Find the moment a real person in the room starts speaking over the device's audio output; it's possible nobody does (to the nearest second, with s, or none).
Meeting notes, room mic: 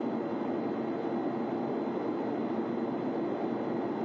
none